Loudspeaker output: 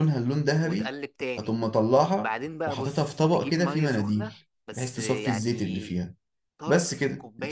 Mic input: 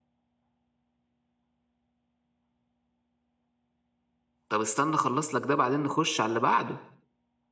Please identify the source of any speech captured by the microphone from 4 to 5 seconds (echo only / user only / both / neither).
user only